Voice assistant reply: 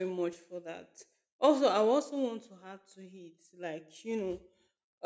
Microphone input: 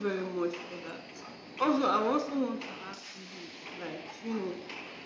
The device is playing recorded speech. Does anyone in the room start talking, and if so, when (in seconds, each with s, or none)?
none